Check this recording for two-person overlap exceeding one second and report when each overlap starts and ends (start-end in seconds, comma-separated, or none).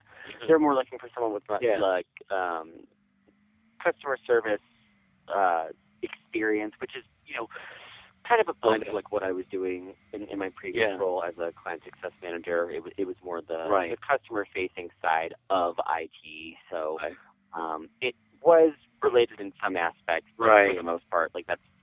none